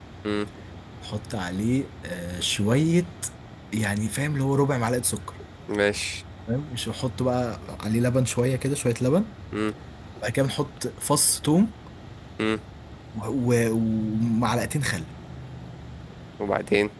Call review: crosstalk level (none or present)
none